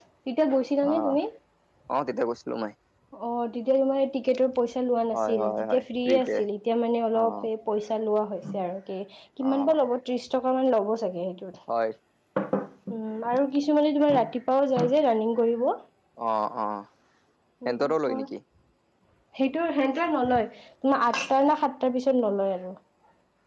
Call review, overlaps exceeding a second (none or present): present